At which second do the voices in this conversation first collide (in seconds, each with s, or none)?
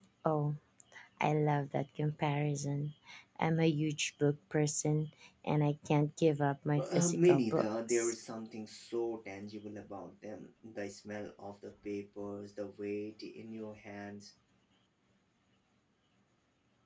6.8 s